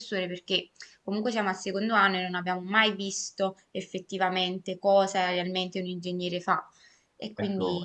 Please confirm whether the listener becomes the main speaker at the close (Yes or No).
Yes